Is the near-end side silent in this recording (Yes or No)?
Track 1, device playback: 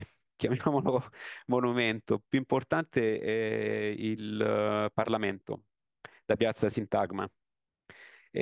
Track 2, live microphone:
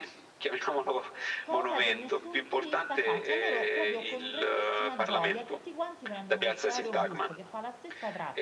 No